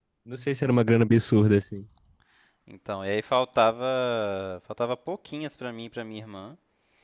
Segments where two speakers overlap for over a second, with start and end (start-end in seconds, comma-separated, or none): none